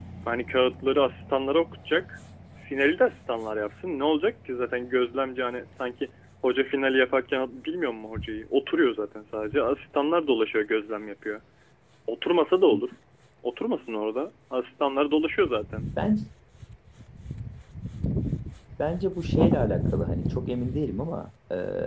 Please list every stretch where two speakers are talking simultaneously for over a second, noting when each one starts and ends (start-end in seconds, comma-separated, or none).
none